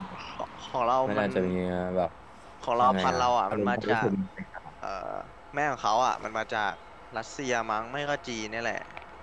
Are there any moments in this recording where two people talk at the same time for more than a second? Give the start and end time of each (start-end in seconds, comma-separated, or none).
2.9-4.1